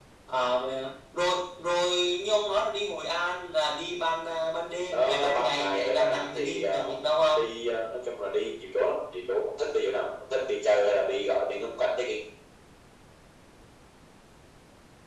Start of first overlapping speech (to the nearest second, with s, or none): 5 s